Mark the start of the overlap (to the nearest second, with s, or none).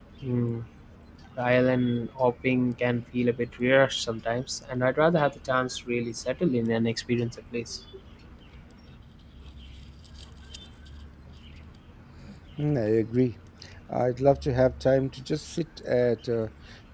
none